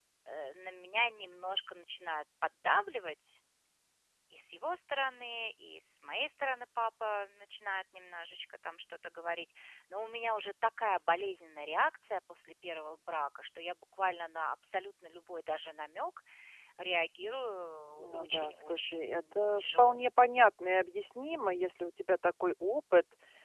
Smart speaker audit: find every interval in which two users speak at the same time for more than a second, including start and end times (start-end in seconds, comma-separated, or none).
18.0-20.0